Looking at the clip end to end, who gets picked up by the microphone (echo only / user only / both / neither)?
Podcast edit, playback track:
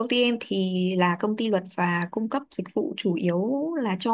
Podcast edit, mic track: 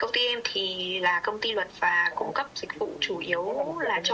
both